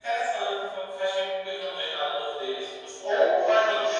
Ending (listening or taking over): taking over